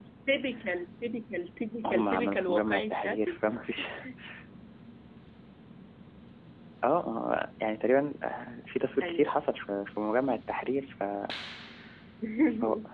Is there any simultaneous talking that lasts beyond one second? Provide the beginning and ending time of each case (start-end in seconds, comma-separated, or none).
1.8-3.4